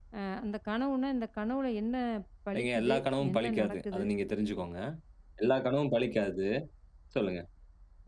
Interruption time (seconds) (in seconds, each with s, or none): 2.5 s